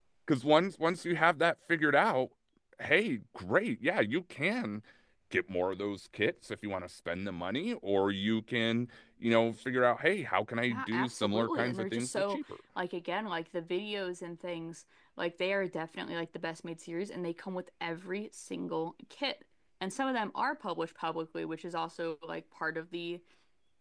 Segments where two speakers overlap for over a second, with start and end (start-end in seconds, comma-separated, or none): 10.7-12.4